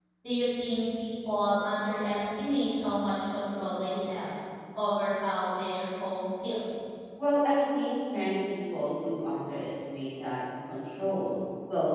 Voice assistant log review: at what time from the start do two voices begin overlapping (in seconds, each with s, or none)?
none